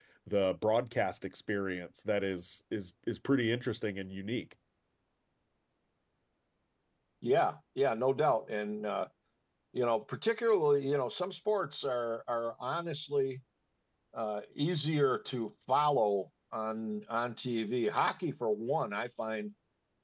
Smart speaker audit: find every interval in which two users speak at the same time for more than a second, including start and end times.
none

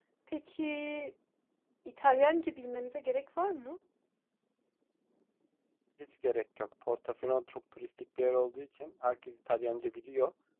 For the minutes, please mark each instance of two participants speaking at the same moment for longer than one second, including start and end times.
none

